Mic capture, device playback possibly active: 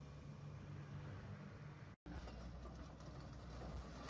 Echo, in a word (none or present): none